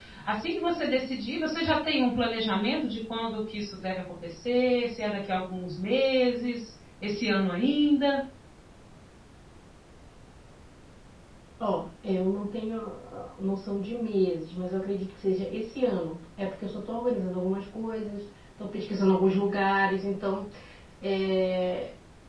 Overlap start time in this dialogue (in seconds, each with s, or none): none